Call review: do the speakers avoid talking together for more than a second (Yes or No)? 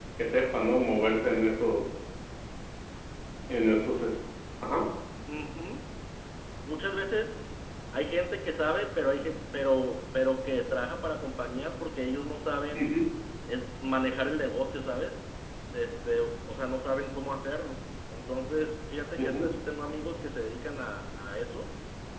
Yes